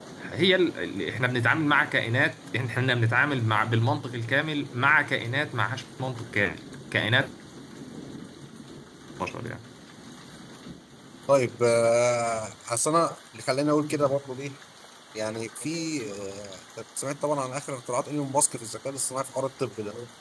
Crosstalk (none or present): none